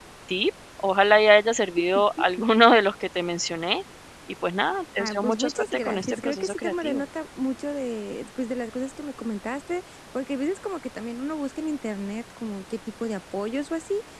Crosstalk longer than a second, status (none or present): present